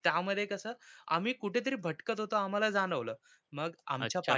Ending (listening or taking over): taking over